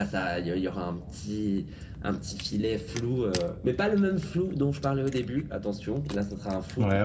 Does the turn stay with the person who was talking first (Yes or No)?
Yes